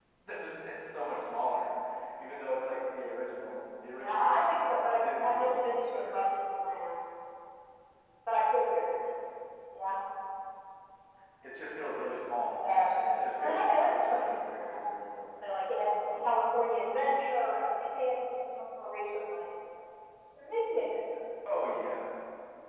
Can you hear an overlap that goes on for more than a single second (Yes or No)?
Yes